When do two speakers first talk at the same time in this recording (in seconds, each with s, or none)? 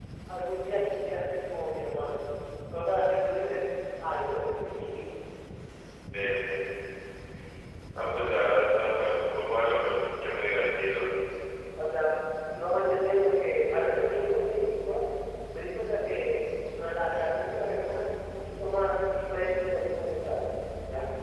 none